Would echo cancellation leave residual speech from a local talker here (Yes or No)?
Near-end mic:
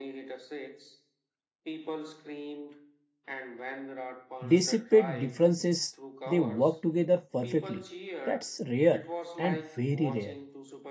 Yes